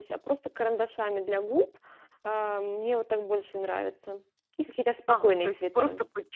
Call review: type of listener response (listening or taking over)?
taking over